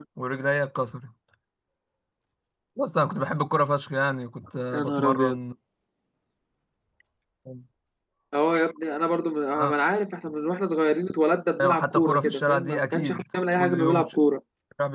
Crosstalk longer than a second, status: present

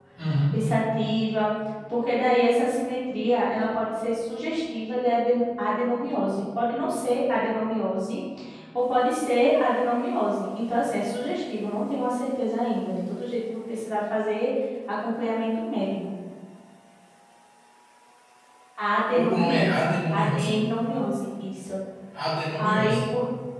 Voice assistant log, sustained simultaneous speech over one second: present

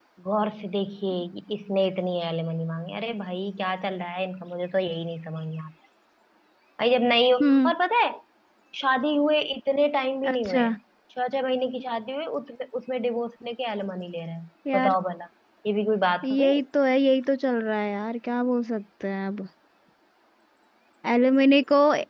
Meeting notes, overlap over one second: none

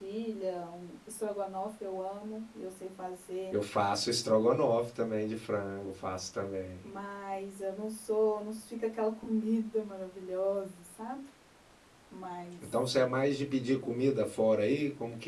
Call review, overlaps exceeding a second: none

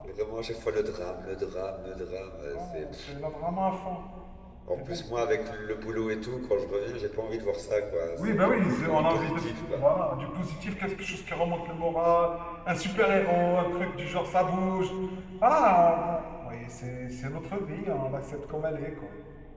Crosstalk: present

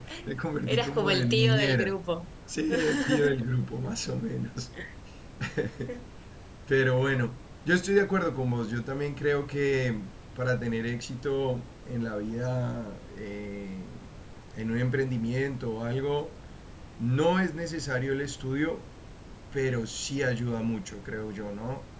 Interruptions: present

